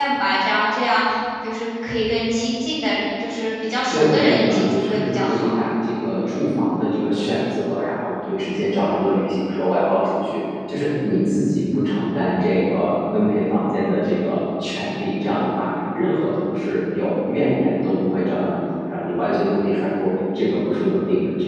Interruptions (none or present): present